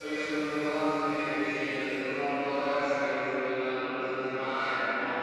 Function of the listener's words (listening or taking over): taking over